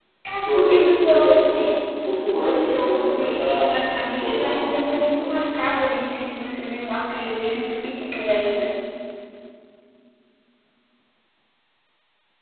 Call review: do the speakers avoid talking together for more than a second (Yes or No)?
No